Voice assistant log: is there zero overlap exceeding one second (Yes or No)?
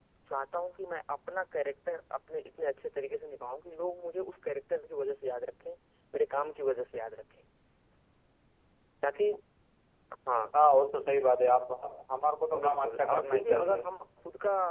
No